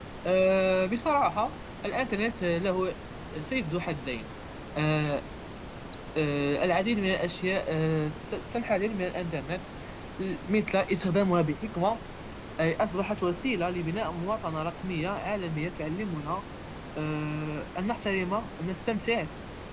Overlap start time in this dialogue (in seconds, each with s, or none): none